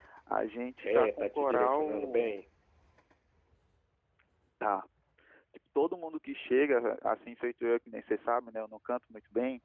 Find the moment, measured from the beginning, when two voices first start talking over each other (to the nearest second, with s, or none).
1 s